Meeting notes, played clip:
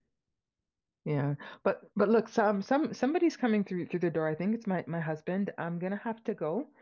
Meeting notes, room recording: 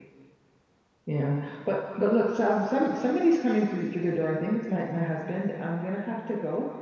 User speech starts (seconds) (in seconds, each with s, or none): none